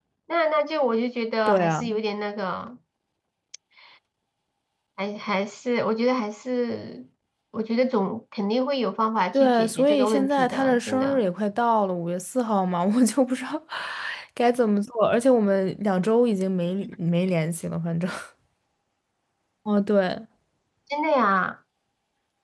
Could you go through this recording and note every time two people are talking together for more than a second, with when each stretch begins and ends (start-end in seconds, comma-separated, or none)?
9.3-11.2